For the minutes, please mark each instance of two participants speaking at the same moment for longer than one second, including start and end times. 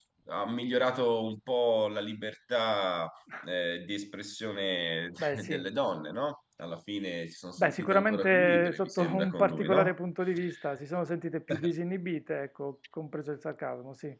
7.6-9.9

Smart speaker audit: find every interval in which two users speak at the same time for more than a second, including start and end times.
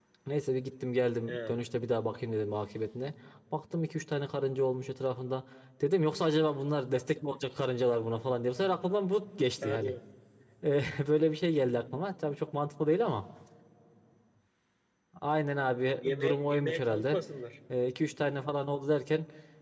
16.0-17.2

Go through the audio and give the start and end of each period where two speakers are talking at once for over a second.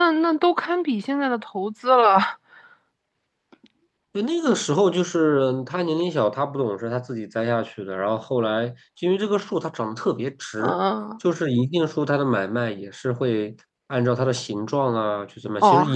none

